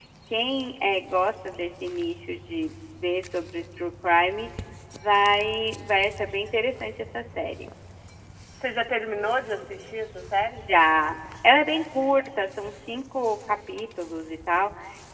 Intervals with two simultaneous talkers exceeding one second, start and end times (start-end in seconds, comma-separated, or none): none